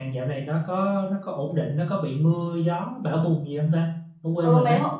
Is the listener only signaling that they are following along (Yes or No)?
No